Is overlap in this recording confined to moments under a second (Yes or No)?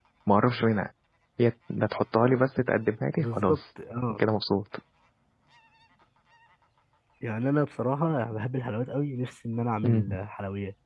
Yes